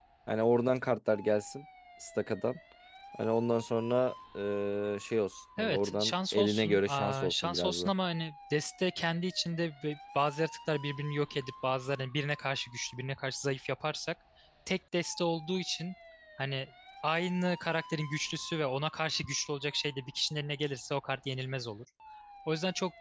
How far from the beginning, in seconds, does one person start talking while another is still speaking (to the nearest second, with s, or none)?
6 s